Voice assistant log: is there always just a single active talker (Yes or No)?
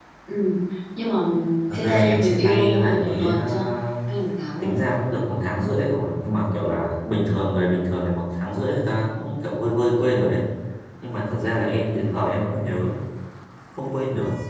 No